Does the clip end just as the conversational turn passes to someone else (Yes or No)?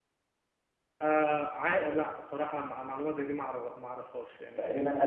Yes